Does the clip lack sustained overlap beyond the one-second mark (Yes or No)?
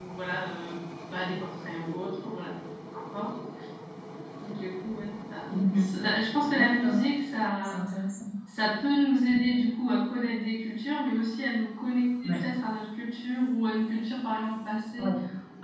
Yes